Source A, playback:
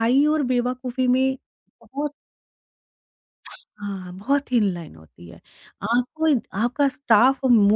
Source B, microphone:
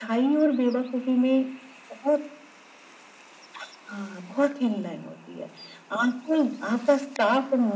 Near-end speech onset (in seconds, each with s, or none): none